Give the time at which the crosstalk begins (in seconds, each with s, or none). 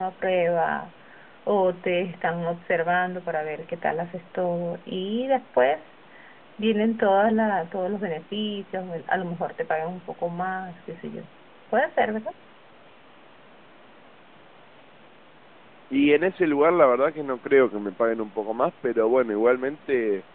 none